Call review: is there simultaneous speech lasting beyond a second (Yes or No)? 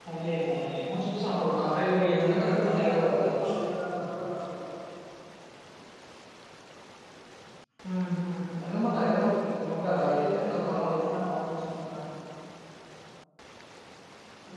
Yes